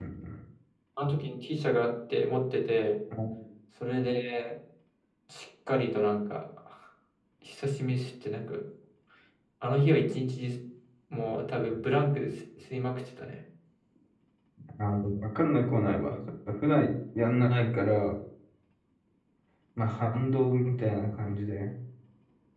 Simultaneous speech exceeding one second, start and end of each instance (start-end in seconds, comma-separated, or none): none